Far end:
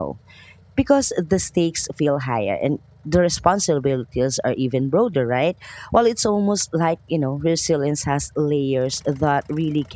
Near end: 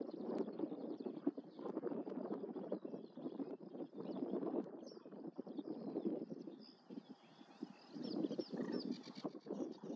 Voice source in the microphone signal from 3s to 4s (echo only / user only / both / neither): neither